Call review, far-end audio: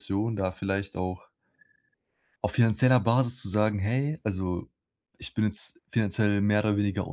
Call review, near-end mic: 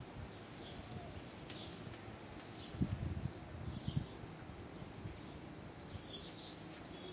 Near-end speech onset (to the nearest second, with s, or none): none